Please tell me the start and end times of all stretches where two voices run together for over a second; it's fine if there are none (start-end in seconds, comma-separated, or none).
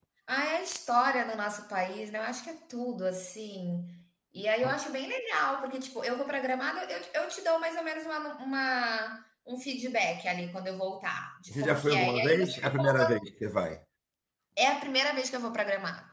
11.5-13.1